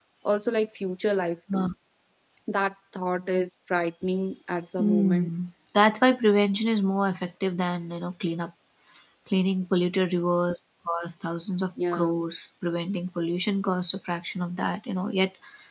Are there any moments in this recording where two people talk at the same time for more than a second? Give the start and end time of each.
none

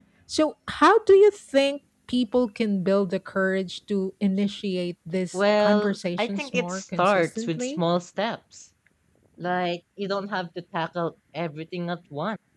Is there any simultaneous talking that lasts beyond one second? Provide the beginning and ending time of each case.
5.3-7.8

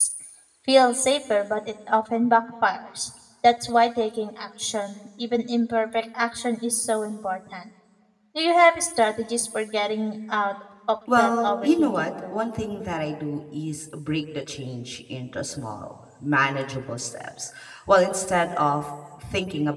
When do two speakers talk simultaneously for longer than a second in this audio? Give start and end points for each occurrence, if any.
11.2-12.4

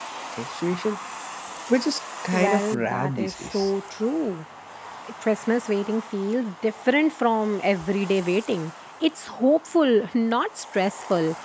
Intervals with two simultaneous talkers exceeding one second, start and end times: 2.3-3.7

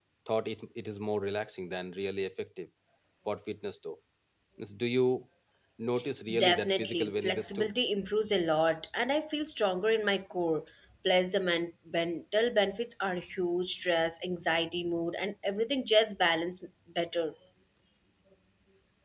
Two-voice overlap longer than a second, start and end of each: 6.4-7.7

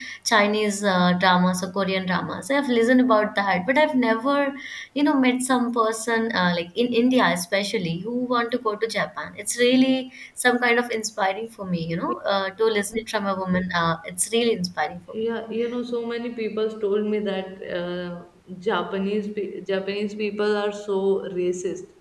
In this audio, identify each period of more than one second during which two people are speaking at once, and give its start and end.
none

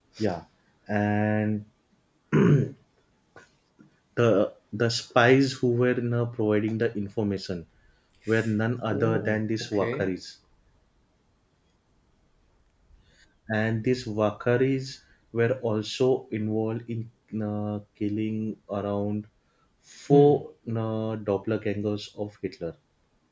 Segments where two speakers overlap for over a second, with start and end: 8.9-10.1

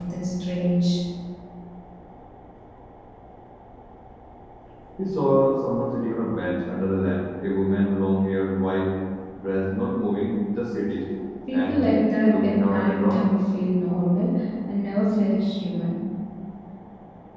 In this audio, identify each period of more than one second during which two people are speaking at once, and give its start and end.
11.5-13.3

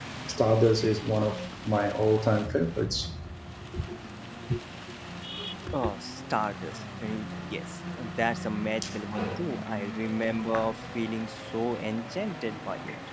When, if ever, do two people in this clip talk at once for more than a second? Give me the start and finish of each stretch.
none

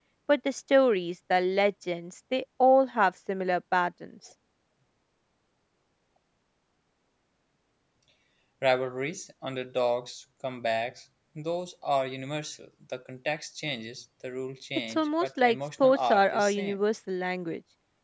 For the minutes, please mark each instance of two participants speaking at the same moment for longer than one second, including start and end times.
14.9-16.8

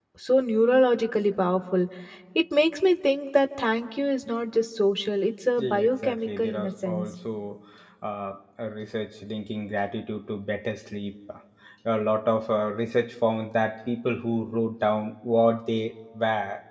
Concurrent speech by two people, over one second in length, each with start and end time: 5.6-7.0

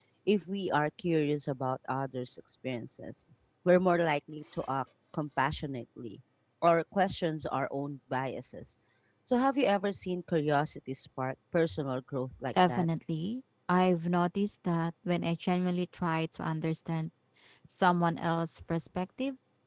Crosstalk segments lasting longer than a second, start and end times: none

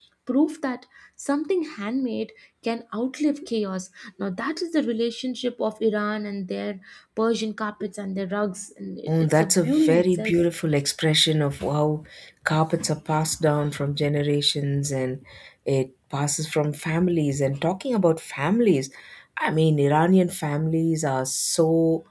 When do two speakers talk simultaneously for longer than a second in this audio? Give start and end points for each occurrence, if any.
9.1-10.4

